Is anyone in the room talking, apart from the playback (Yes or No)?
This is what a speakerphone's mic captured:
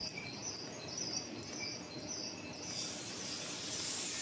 No